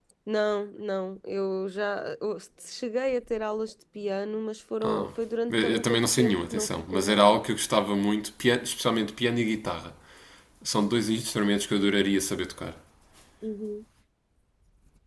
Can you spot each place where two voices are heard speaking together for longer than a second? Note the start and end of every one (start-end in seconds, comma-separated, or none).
5.5-7.4